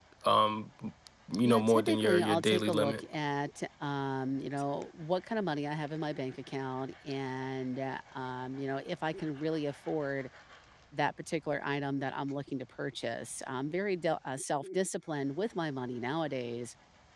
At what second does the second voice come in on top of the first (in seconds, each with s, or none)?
1.4 s